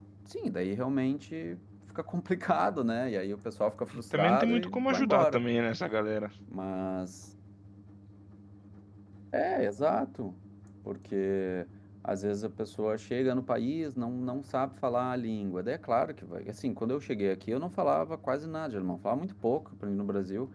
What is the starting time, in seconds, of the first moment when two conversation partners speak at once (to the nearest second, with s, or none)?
4 s